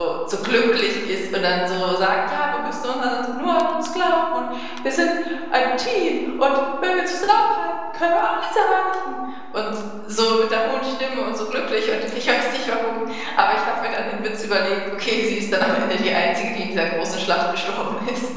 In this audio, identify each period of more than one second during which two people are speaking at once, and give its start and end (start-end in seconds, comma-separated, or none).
none